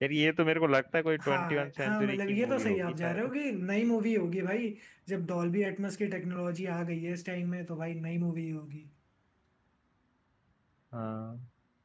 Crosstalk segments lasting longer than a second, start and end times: 1.2-3.2

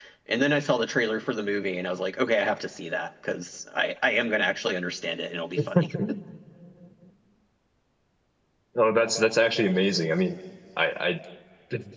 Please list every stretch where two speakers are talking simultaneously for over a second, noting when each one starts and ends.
none

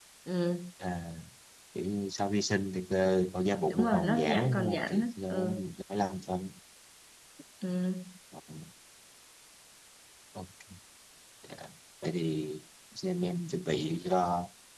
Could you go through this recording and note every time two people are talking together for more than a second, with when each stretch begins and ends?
3.7-5.6

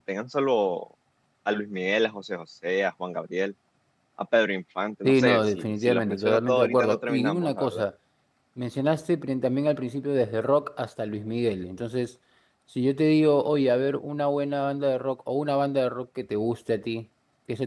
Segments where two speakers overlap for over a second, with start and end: 5.0-7.8

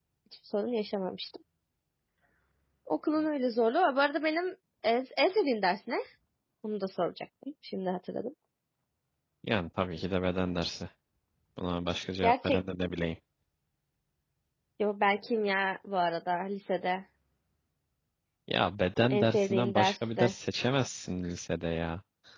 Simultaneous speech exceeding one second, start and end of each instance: 19.1-20.3

